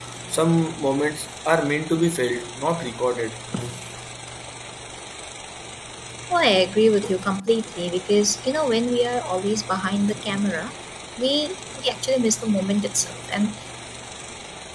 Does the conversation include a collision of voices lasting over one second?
No

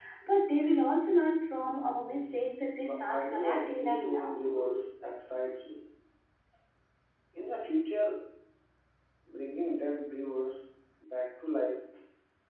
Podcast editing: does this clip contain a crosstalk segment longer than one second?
Yes, from 2.8 s

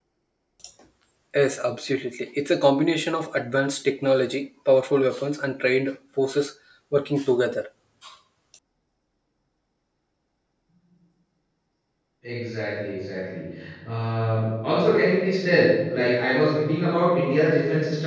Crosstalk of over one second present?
No

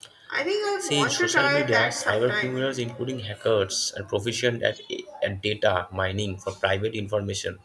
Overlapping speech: Yes, from 0.8 s

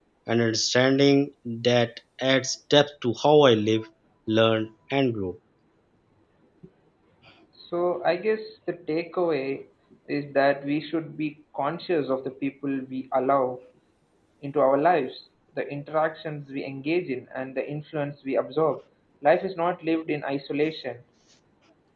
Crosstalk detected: No

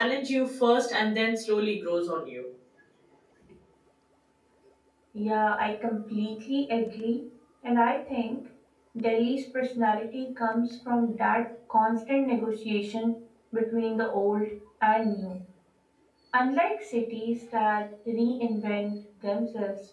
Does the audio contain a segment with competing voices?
No

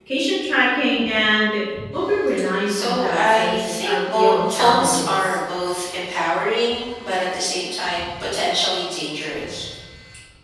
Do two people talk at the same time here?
Yes, from 2.7 s

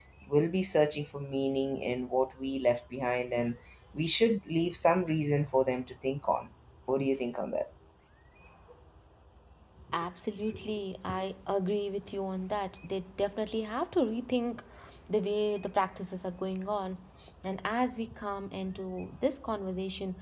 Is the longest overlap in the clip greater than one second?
No

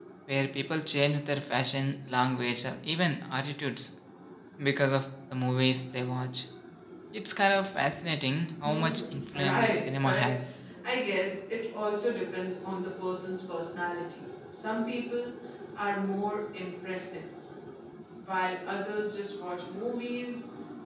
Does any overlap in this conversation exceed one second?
Yes, from 8.6 s

